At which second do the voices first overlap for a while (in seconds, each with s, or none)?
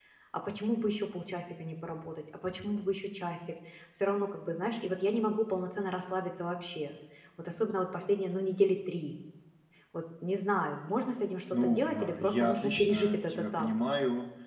11.5 s